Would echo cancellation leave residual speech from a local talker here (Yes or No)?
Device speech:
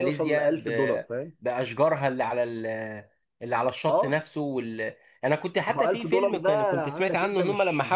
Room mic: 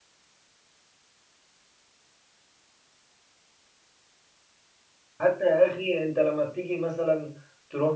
Yes